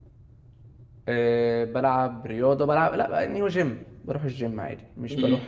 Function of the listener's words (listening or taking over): listening